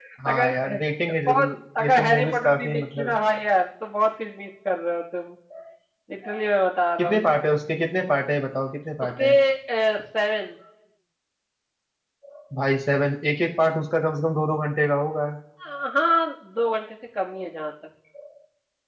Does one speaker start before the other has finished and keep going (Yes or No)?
Yes